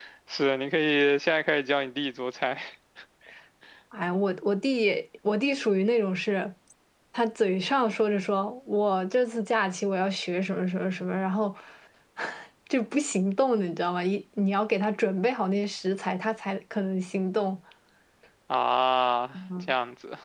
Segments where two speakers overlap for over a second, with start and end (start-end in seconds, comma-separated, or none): none